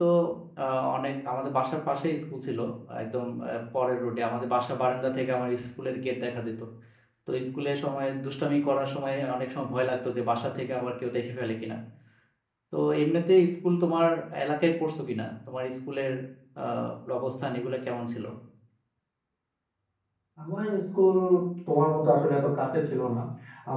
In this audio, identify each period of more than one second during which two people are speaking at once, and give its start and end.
none

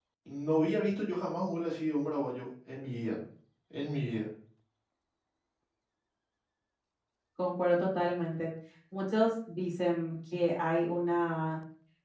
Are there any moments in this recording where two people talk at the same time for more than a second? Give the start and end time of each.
none

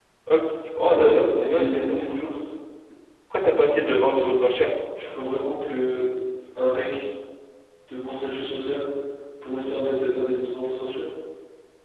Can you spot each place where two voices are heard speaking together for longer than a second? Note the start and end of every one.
0.8-2.2

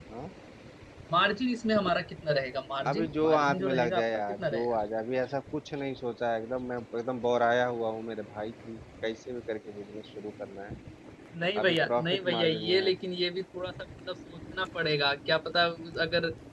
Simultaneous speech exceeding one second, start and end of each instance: 2.9-4.7, 11.6-13.0

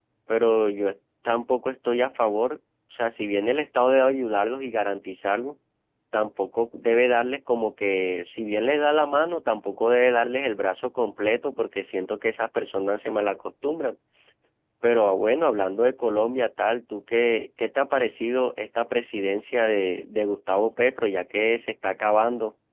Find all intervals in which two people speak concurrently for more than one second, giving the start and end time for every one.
none

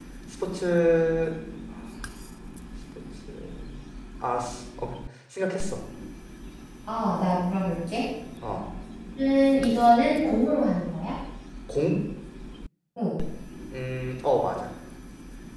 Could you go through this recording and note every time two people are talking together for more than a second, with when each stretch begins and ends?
none

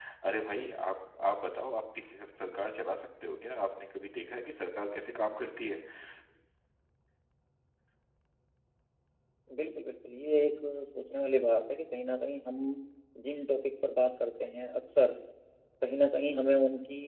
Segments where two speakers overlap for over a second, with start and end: none

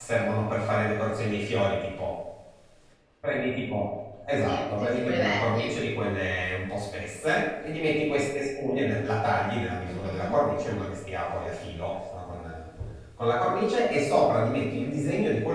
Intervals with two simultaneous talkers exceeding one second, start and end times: 4.5-5.7

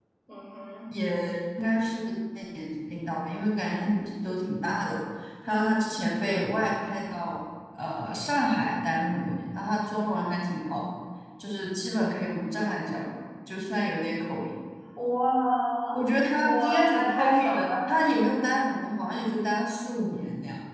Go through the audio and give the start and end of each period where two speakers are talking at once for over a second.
16.4-17.7

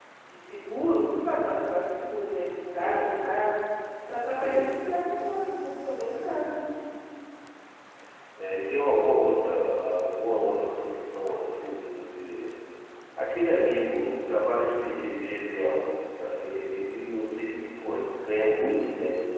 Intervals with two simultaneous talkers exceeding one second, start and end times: none

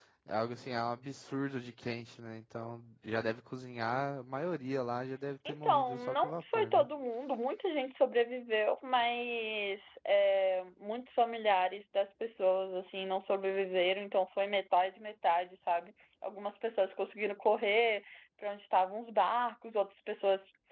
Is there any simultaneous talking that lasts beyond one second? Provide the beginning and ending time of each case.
5.5-6.9

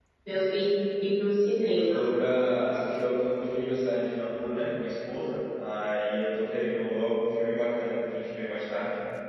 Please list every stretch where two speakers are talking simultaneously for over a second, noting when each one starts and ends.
none

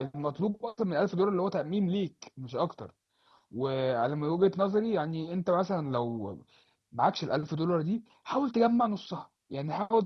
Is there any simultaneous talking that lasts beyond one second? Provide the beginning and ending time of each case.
none

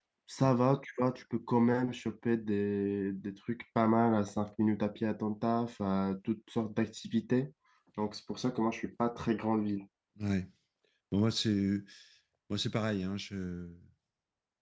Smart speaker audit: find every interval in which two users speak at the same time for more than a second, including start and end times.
none

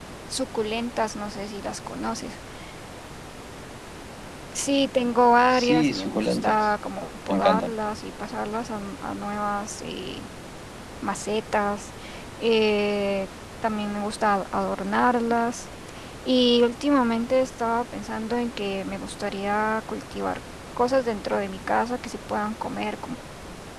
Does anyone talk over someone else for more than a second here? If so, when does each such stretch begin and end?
5.5-6.7

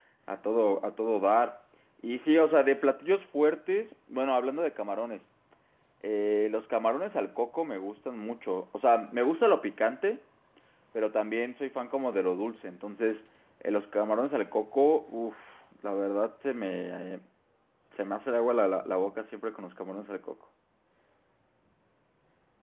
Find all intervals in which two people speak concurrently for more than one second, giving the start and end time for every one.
none

